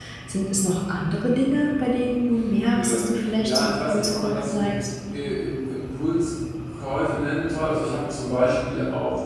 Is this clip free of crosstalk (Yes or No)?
No